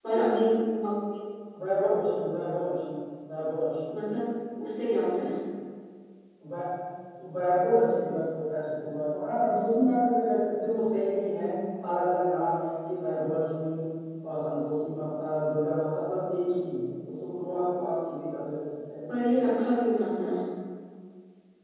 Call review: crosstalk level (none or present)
none